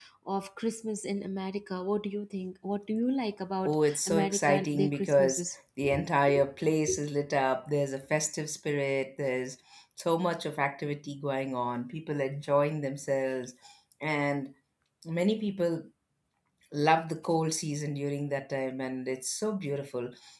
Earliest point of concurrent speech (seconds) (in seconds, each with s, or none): 3.6 s